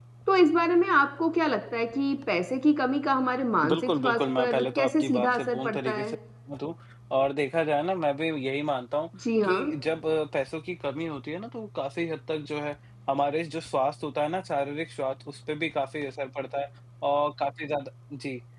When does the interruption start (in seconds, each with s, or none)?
3.7 s